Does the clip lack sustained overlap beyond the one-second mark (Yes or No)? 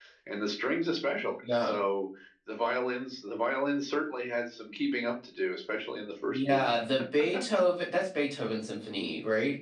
Yes